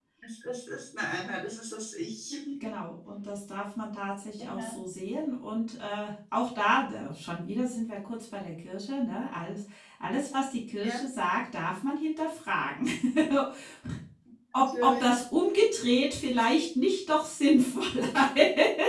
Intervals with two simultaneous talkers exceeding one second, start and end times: none

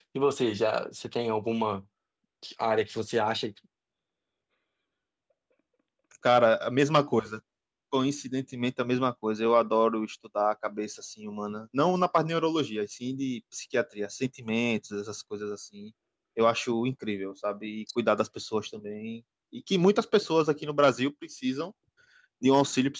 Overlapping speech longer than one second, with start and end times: none

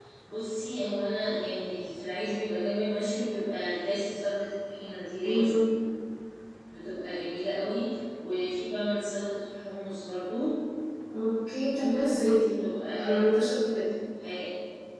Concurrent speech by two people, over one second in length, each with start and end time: none

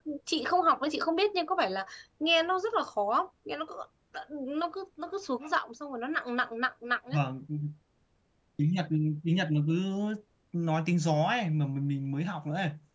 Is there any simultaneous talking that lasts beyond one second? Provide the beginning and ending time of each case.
none

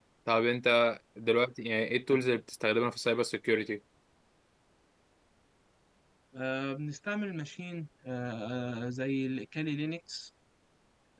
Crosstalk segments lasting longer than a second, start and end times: none

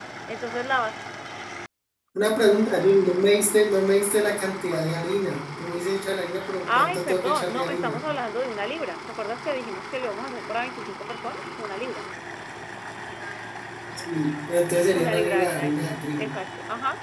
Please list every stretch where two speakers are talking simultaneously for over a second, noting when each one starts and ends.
6.7-8.0, 15.0-16.3

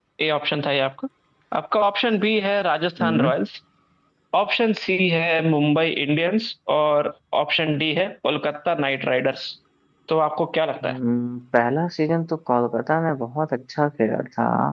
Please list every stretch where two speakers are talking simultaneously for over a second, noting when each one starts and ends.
none

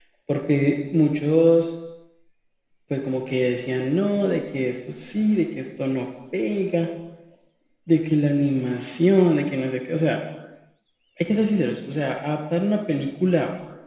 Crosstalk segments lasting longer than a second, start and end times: none

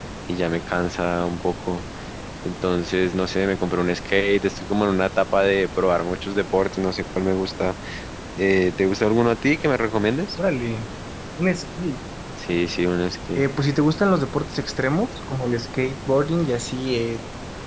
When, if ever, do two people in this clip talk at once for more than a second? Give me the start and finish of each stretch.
none

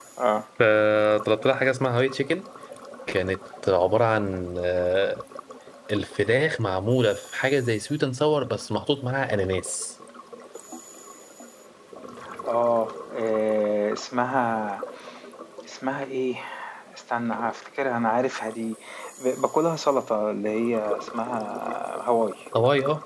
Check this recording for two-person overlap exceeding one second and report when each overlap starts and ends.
none

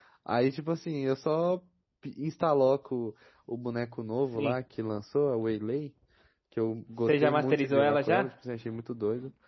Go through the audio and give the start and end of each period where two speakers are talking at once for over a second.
7.0-8.3

